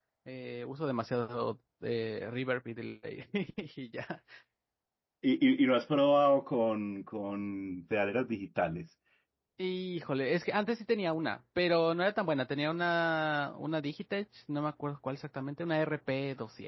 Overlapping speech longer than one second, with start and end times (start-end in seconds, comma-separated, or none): none